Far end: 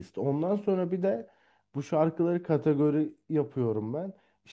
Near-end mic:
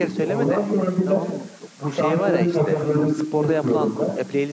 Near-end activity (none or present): present